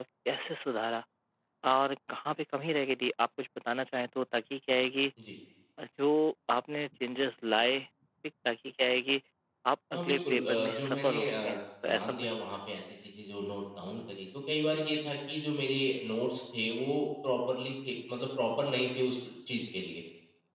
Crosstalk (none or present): present